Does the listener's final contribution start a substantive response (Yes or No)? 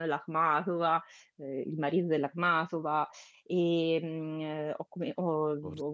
No